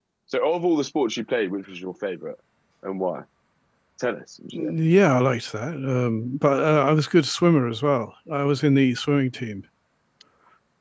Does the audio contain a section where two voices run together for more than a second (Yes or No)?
No